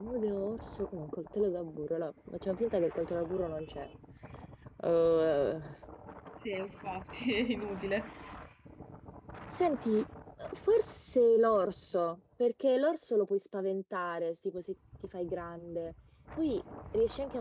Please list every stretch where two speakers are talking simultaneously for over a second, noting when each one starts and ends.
none

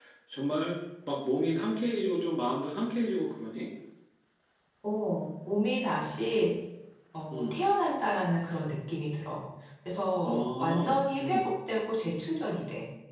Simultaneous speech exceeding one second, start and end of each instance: 10.2-11.5

